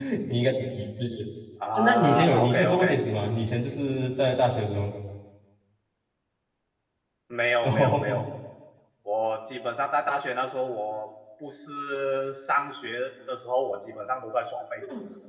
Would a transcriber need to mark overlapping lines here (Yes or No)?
Yes